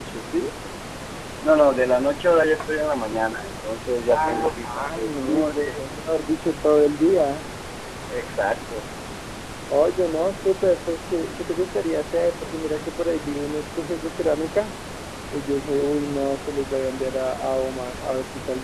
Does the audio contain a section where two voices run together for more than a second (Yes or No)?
Yes